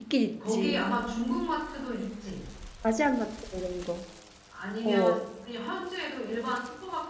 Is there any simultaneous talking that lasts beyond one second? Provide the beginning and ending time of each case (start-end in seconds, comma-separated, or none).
none